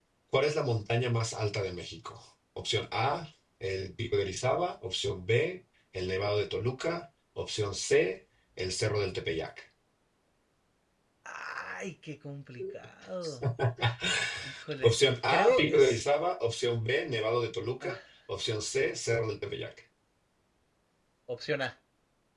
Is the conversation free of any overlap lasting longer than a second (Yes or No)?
No